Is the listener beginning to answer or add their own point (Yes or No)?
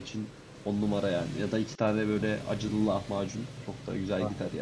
Yes